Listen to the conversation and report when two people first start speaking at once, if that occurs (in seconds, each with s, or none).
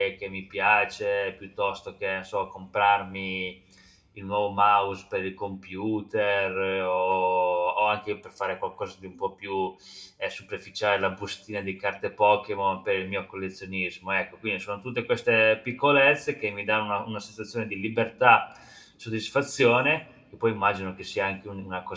none